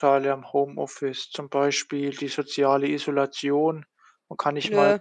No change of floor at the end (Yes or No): Yes